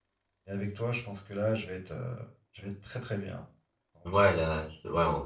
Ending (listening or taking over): taking over